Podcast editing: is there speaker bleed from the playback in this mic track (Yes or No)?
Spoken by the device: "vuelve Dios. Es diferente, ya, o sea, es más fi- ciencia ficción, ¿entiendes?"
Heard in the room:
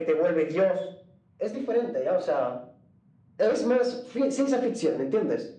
Yes